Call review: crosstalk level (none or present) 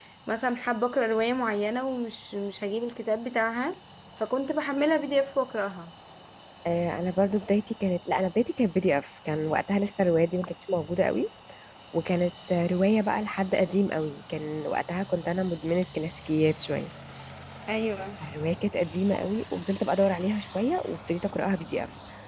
none